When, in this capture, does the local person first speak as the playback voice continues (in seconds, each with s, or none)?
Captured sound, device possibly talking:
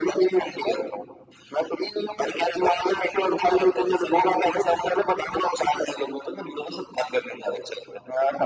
none